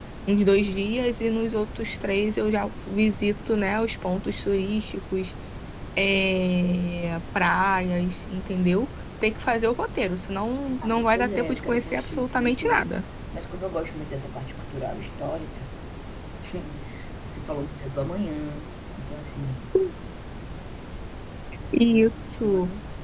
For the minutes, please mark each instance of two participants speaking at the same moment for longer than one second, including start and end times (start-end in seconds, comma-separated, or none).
10.8-12.9